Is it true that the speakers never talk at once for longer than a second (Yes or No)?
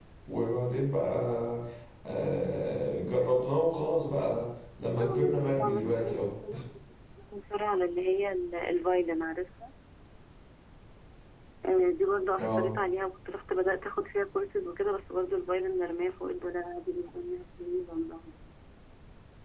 No